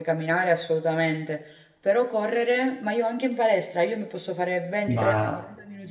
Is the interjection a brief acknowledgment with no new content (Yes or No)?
Yes